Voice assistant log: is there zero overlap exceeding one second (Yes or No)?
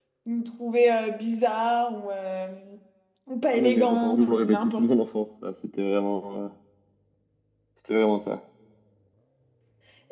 No